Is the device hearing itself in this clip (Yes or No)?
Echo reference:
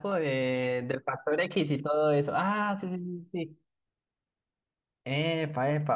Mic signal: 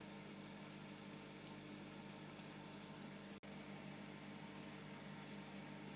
No